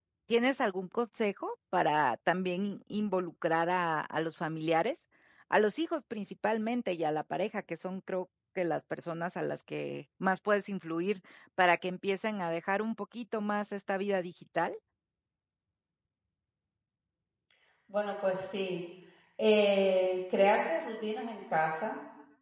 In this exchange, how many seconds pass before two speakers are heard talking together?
none

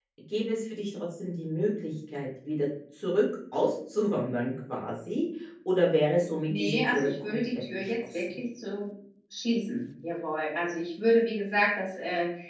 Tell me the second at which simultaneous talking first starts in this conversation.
6.5 s

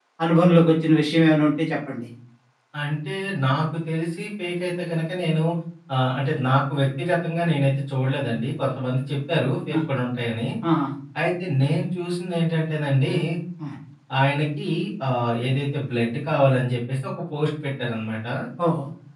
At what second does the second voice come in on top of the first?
none

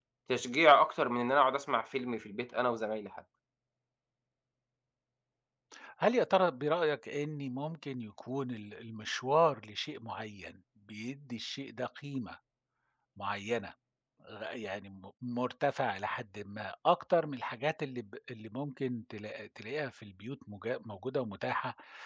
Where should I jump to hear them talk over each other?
none

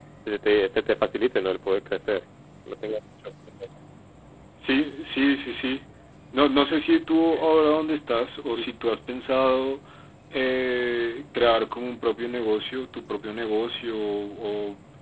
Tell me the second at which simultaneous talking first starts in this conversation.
none

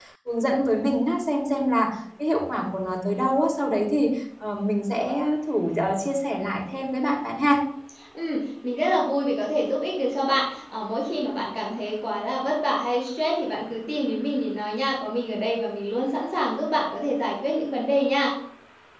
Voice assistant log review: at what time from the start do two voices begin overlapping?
none

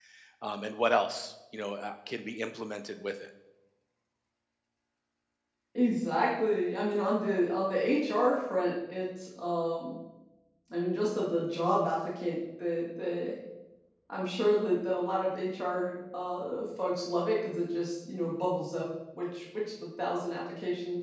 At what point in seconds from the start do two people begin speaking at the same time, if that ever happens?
none

